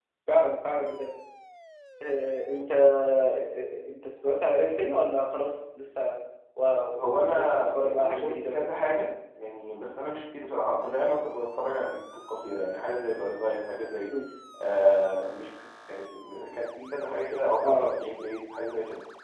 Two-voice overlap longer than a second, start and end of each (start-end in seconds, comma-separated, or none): 7.2-8.7